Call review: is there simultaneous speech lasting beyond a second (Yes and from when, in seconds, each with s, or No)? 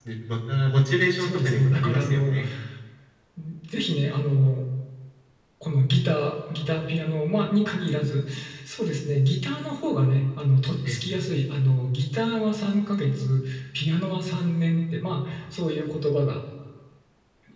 Yes, from 1.2 s